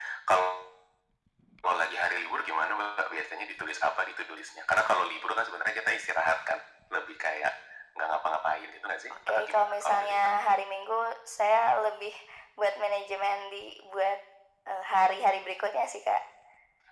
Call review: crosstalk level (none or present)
present